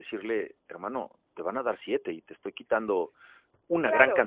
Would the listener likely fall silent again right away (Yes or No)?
No